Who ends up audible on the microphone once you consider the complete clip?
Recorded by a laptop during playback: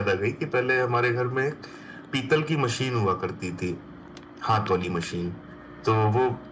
echo only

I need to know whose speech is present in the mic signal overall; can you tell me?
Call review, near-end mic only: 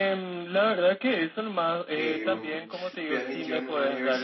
both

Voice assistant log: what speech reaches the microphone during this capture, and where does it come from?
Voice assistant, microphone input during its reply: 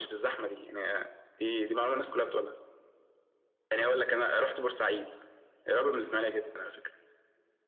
echo only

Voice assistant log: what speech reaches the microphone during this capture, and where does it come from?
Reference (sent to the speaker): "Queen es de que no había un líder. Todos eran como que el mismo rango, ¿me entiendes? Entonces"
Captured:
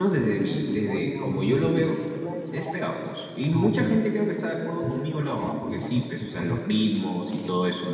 both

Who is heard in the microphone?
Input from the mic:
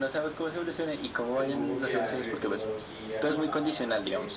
both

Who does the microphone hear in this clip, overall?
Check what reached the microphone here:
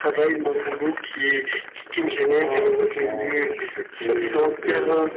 both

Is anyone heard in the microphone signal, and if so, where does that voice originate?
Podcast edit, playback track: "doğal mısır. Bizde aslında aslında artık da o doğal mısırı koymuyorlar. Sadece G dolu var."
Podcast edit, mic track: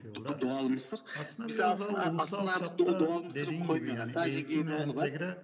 both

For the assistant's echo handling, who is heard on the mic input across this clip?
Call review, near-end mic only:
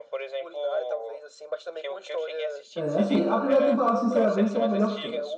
both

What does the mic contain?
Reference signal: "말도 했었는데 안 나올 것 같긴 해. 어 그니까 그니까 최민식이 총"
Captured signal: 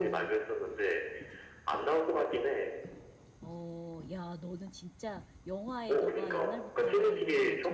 both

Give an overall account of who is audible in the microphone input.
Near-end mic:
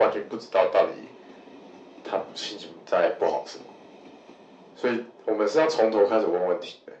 echo only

